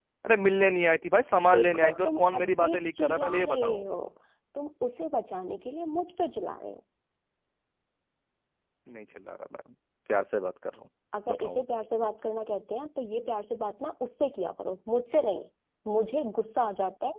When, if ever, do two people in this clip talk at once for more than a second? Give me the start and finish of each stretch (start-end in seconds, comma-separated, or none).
1.5-3.8